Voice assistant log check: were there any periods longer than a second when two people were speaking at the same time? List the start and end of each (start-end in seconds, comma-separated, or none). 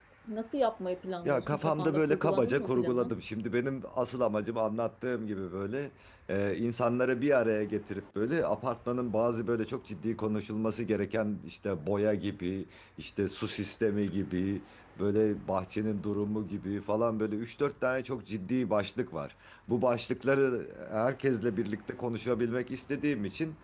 1.2-3.1